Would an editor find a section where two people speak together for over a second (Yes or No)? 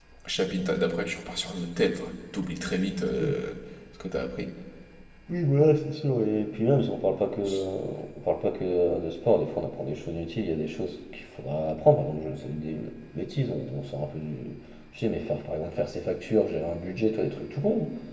No